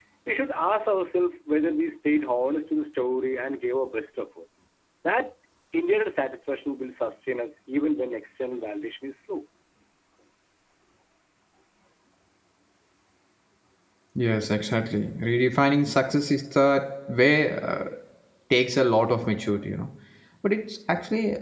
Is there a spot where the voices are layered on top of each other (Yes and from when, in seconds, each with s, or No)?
No